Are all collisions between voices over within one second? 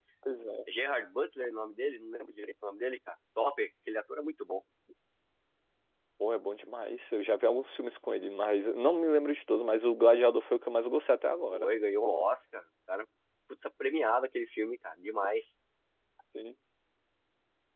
Yes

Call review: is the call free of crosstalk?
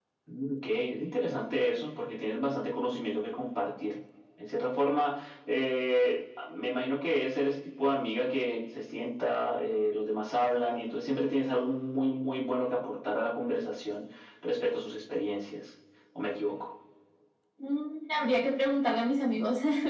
Yes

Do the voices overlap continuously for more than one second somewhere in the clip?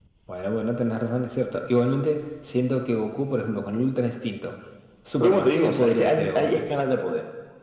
Yes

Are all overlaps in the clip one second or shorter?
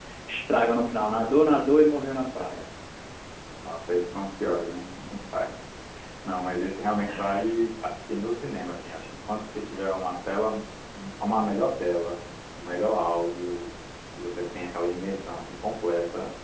Yes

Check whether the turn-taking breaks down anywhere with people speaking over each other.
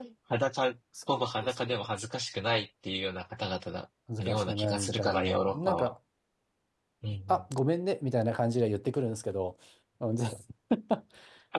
Yes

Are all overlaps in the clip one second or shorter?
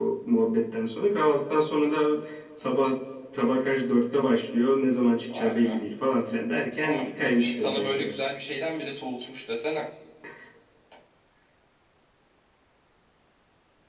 No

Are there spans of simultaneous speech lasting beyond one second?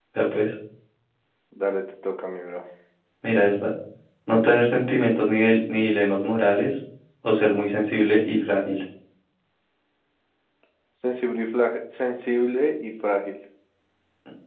No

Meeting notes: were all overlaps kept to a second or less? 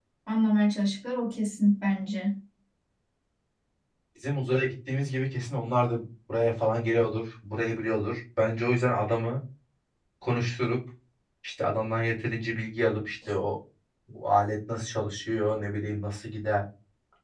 Yes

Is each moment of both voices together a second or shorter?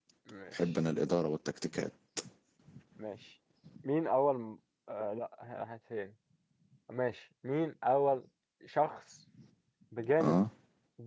Yes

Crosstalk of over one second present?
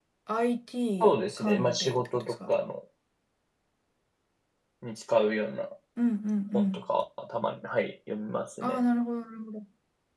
Yes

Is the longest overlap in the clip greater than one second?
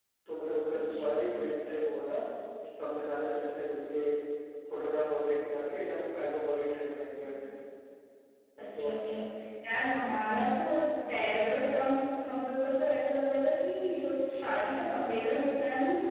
No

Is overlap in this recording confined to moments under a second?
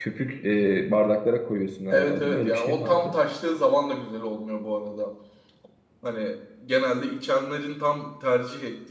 No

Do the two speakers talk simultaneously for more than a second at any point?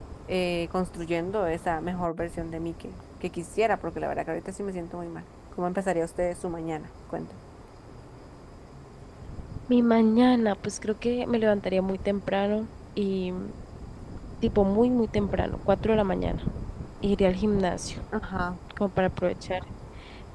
No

